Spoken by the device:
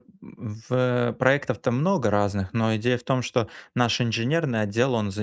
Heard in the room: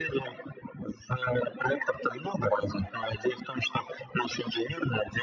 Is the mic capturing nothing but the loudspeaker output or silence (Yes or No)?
Yes